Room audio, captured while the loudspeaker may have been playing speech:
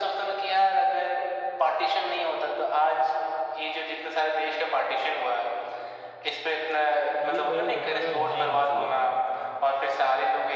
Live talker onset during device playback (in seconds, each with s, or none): 7.3 s